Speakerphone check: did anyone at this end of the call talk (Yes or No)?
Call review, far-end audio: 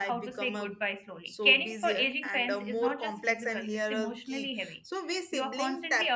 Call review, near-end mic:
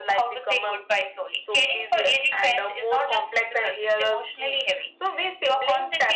No